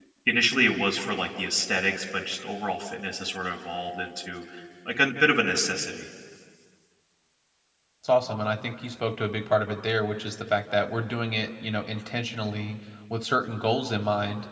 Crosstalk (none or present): none